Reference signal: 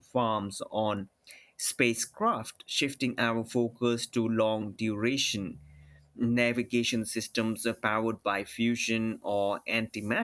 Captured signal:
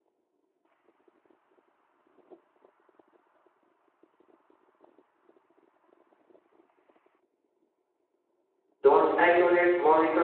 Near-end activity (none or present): present